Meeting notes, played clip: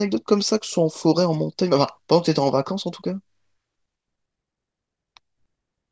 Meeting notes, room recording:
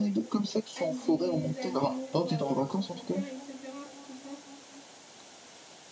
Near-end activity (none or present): present